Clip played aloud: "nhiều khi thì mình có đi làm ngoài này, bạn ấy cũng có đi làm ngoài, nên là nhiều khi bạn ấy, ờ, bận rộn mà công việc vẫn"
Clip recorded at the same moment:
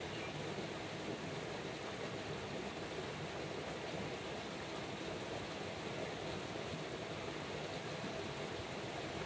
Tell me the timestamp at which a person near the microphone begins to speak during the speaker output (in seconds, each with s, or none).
none